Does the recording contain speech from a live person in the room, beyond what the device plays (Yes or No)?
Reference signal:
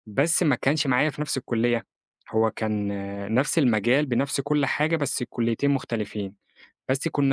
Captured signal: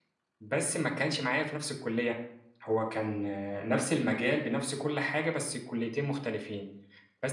No